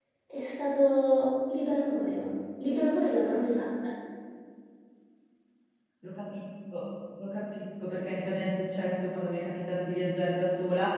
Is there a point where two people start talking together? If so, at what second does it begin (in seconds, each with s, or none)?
none